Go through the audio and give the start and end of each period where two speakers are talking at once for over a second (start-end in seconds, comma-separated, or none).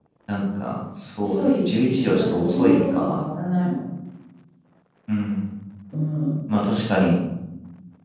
1.2-3.2